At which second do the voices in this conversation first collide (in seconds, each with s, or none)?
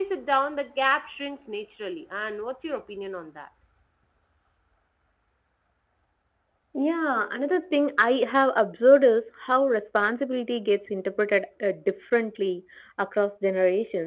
none